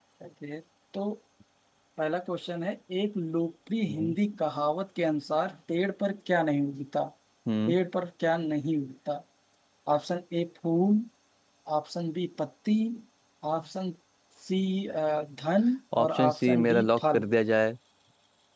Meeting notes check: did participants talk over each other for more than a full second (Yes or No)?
Yes